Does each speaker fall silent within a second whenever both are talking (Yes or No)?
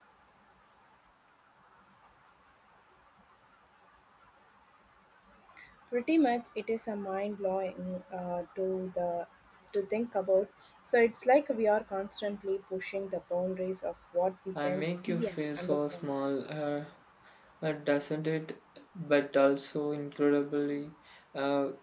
No